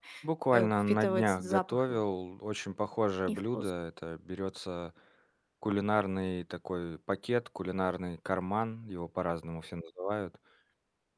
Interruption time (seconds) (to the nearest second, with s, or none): 1 s